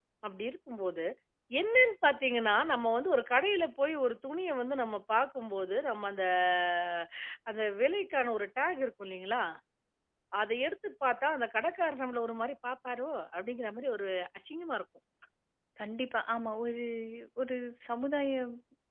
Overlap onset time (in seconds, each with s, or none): none